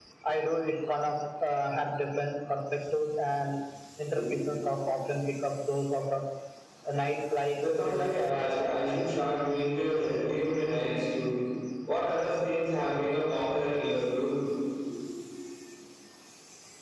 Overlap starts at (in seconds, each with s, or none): 7.7 s